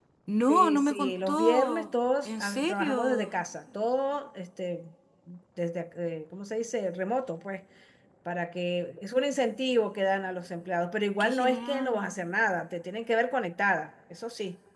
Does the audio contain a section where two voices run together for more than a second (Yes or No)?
Yes